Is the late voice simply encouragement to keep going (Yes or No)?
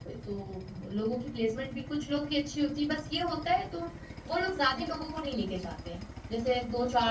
Yes